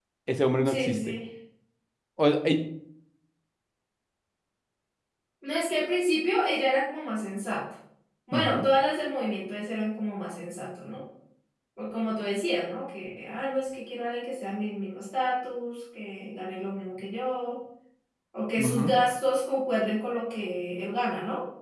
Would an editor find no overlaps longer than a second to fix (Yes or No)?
Yes